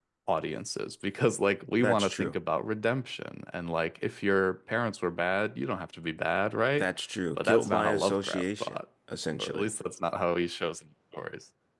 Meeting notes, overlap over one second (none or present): present